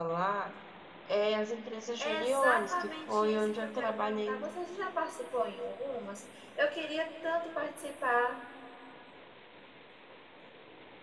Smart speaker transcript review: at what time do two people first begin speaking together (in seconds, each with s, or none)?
2.0 s